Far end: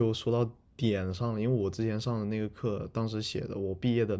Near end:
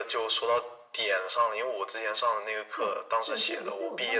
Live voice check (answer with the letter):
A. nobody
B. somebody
B